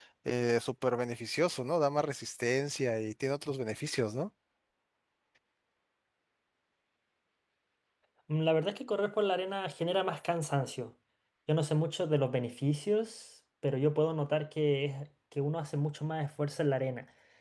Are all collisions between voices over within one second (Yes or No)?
Yes